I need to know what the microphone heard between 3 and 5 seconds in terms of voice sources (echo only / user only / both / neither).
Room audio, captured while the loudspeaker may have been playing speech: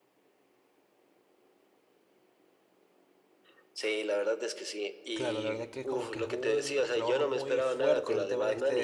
echo only